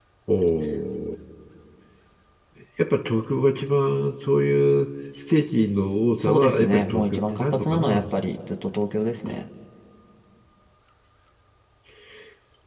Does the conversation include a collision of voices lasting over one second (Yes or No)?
Yes